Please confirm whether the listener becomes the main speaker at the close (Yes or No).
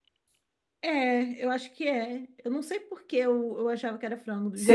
Yes